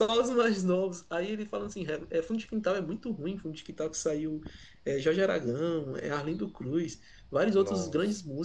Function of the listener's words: listening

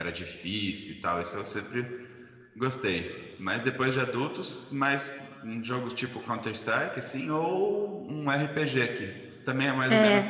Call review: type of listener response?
taking over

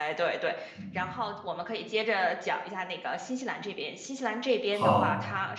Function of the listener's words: listening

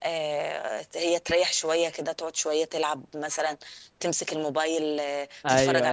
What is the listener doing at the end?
taking over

